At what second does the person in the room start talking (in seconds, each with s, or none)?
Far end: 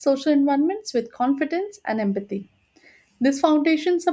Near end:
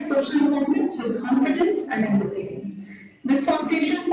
none